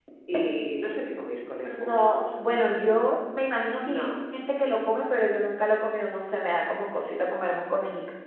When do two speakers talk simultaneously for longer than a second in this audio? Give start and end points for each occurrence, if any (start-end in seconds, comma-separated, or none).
1.8-3.0